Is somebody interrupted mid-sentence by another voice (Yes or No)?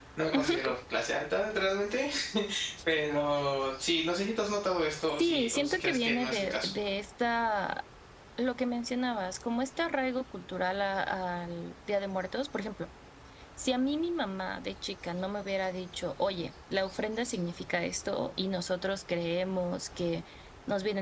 Yes